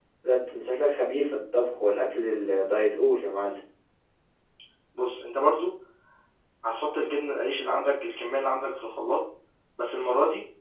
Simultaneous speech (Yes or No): No